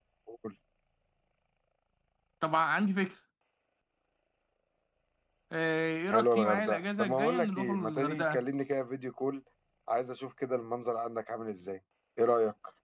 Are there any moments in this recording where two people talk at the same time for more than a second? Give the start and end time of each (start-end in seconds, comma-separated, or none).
6.1-8.4